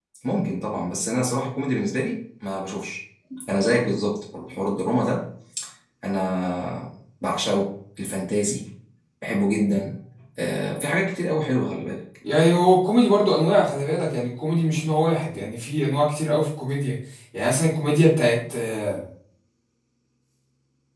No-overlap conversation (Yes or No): Yes